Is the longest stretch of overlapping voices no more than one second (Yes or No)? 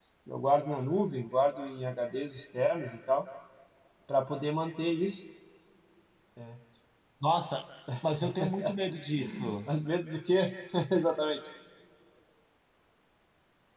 Yes